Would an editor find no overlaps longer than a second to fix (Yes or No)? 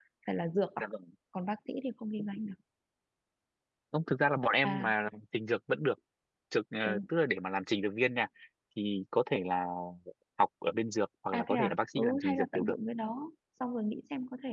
No